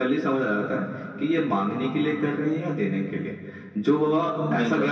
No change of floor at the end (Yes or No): Yes